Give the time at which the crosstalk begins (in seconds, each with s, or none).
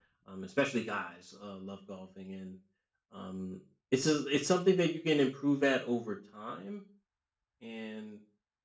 none